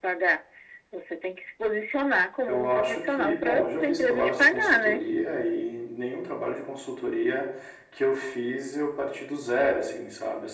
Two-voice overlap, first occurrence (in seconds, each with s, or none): 2.4 s